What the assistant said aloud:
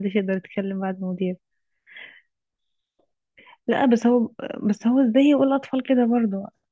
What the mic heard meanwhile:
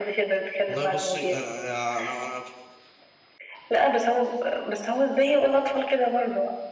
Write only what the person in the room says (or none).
والله بصي انا انا انا